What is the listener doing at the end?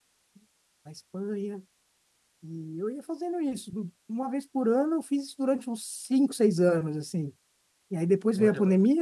listening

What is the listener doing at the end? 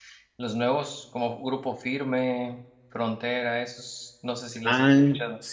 taking over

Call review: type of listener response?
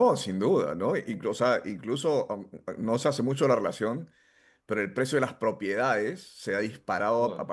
listening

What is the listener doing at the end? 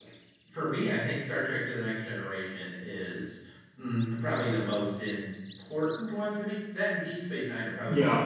taking over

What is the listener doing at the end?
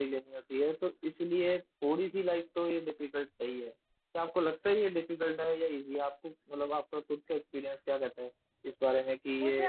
taking over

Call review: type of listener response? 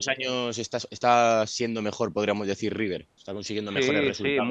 taking over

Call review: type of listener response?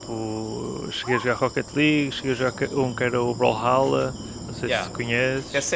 taking over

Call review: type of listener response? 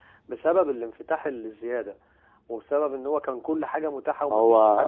listening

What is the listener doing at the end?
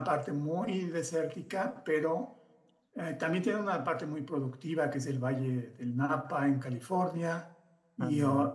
listening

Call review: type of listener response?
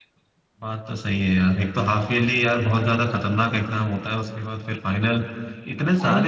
listening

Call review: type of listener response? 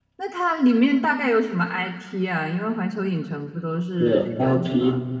taking over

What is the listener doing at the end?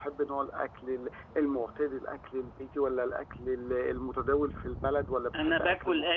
taking over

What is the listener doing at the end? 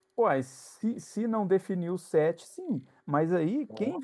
listening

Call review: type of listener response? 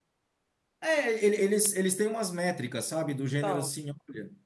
listening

